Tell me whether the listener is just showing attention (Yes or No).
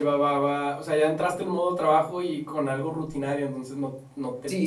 No